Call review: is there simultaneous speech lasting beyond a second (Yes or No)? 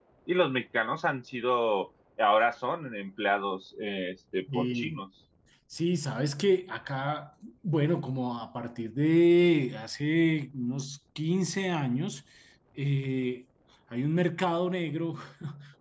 No